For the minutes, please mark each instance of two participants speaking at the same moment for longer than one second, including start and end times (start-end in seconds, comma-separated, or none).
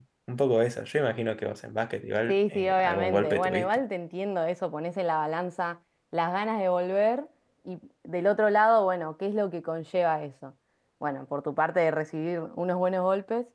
2.3-3.8